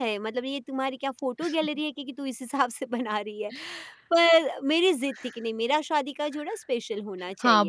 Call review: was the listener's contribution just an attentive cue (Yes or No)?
No